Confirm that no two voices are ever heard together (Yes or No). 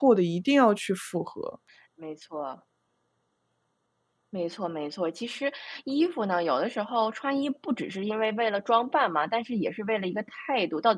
Yes